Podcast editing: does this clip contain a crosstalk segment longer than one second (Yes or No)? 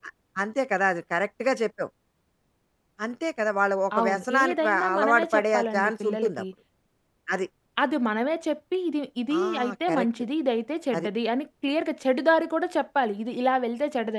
Yes